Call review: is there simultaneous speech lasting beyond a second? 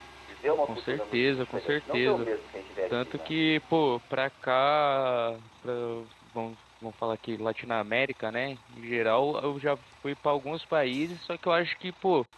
Yes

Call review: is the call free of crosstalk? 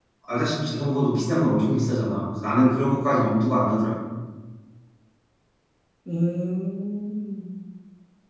Yes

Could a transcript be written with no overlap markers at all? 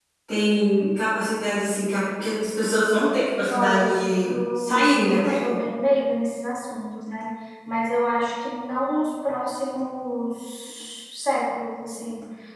No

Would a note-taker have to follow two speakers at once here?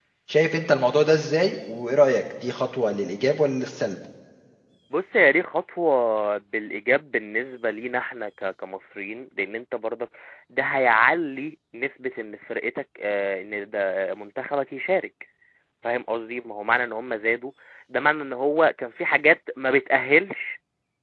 No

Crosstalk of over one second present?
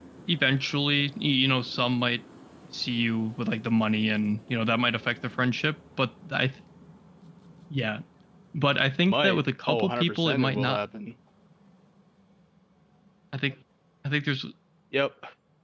Yes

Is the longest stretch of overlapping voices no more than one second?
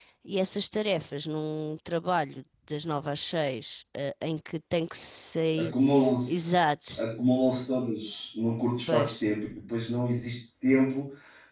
Yes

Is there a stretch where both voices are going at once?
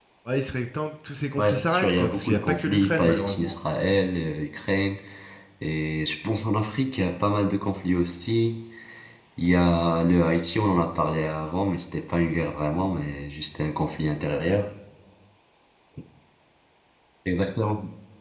Yes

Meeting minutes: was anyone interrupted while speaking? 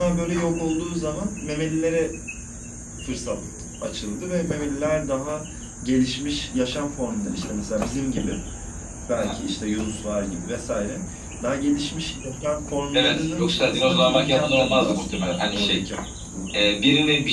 Yes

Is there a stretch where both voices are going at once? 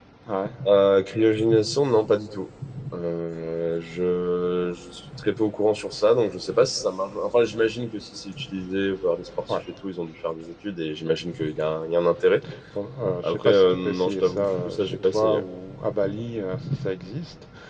Yes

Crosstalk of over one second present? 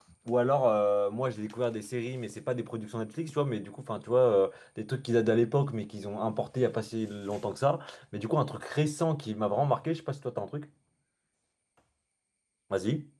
No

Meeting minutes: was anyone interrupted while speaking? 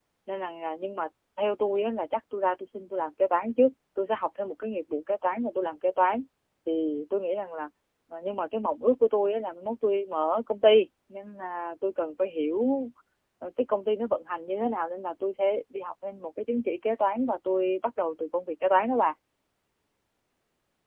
No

